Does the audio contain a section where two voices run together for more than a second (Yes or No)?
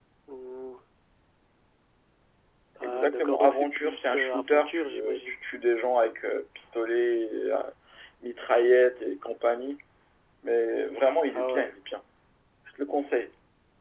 Yes